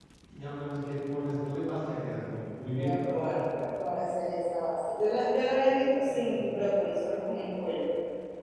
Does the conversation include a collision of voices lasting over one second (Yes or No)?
No